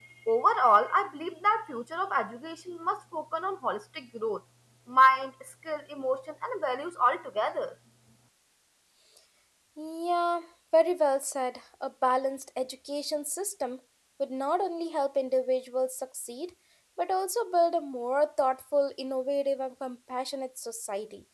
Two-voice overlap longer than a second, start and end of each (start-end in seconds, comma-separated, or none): none